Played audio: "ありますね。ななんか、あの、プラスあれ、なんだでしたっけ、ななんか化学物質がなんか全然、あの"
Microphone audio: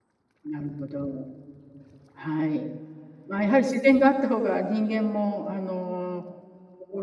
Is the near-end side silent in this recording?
No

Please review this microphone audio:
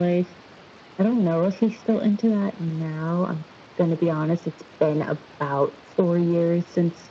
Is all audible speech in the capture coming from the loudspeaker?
Yes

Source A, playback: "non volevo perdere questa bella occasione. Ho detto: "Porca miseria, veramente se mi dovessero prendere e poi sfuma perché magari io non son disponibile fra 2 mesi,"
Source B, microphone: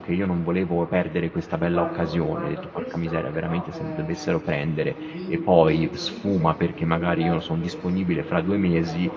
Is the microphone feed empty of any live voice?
No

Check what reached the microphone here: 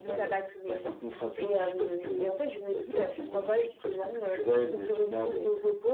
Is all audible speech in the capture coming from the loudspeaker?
Yes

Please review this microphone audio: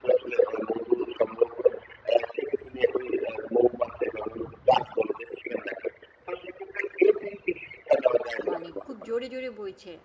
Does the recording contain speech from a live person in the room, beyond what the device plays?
Yes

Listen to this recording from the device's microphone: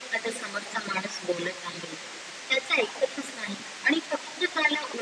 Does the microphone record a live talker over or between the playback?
No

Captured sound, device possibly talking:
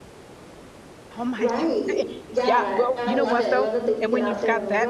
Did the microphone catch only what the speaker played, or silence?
No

